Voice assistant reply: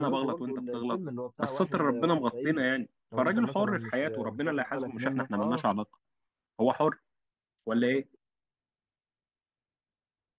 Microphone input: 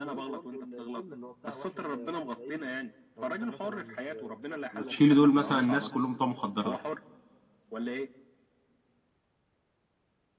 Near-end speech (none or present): present